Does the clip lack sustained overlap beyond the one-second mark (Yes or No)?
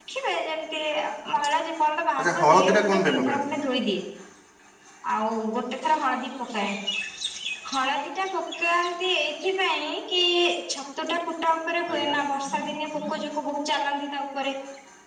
No